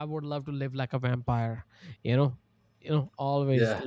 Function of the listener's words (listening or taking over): listening